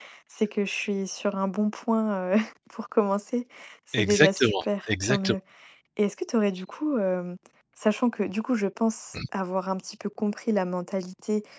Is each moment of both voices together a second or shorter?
No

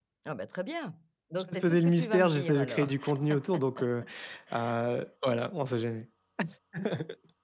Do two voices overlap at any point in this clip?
Yes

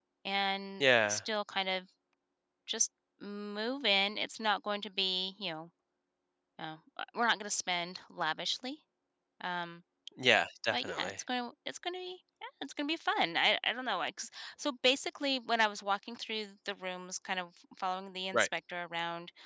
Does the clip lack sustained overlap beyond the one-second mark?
Yes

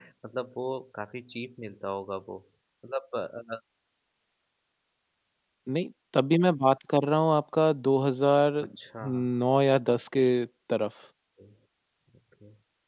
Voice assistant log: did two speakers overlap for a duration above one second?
No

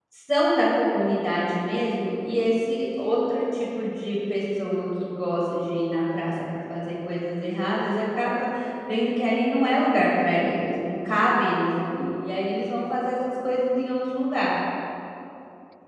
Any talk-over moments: No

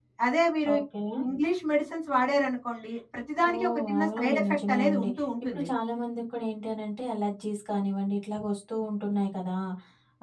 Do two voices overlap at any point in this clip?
Yes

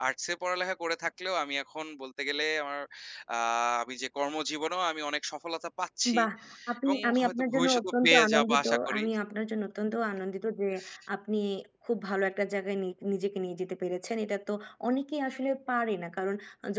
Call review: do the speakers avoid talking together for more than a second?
No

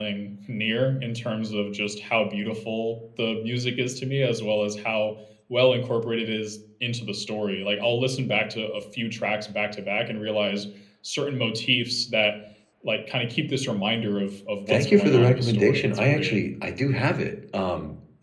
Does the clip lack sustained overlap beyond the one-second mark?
No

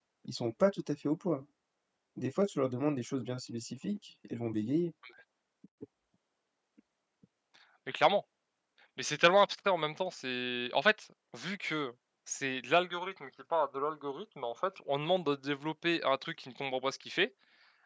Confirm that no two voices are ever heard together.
Yes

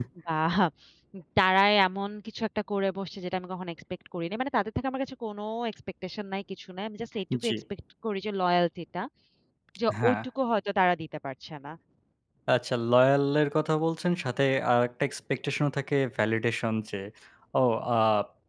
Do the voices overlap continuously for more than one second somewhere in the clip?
No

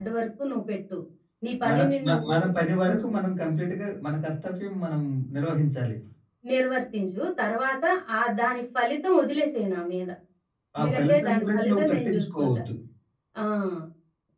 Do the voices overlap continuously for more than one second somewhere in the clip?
Yes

